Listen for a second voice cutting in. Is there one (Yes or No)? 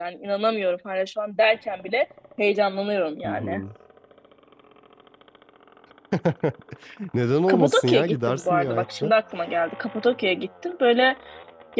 Yes